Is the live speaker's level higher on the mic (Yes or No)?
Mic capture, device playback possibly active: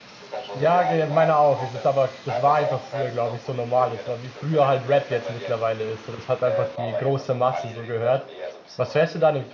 Yes